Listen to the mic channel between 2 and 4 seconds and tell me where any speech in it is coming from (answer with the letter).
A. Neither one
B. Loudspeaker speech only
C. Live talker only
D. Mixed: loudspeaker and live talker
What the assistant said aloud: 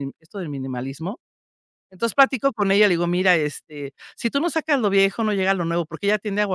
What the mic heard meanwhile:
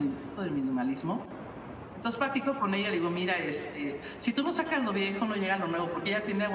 B